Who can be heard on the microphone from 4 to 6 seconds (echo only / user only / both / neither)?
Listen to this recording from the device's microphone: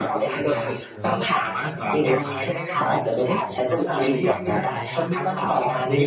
both